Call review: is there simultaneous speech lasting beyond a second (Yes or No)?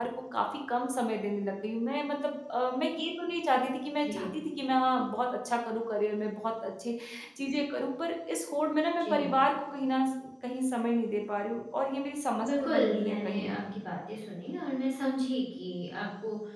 Yes